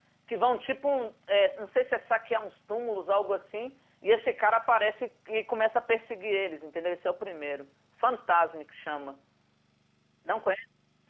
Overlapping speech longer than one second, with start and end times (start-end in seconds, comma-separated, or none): none